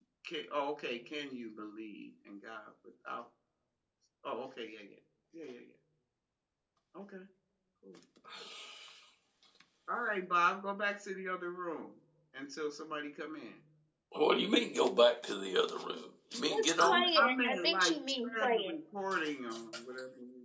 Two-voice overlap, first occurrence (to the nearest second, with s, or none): 16 s